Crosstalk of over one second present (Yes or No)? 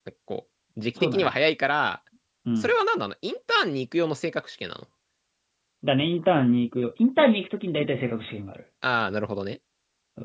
No